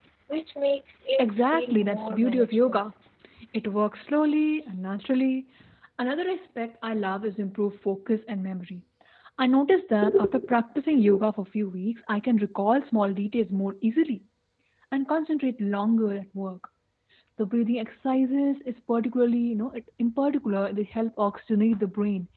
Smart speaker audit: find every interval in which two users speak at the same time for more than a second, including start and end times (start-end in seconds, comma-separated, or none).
1.2-2.8